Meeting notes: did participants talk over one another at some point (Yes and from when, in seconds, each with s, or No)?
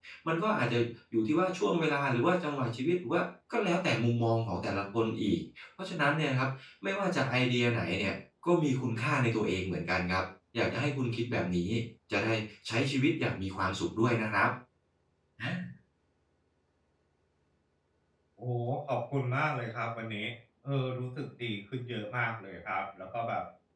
No